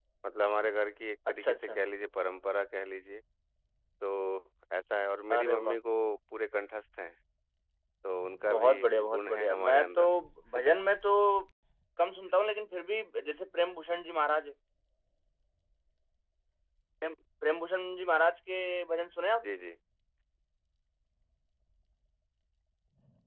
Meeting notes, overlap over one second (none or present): present